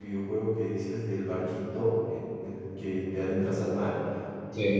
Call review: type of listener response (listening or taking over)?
listening